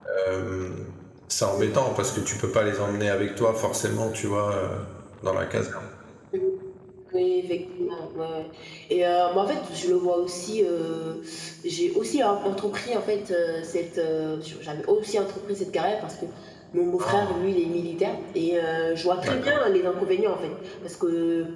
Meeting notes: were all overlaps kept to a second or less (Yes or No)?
Yes